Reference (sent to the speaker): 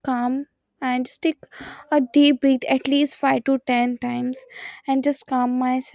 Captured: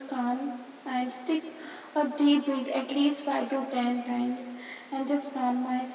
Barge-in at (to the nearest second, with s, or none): none